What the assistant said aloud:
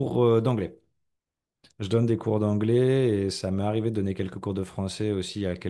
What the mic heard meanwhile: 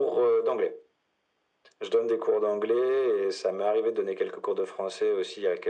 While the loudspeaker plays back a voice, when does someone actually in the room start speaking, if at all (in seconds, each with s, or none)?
none